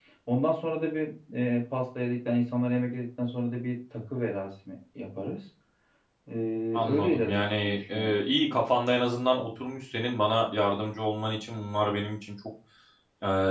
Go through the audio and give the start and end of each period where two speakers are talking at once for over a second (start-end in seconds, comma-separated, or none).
6.8-8.1